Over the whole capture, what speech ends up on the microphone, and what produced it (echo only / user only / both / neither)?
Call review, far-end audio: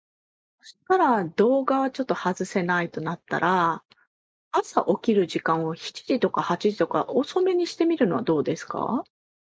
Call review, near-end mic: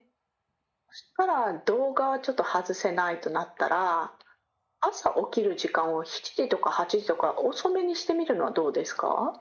echo only